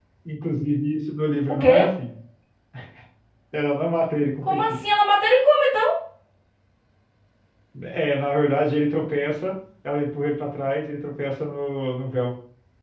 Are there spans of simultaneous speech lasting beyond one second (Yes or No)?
No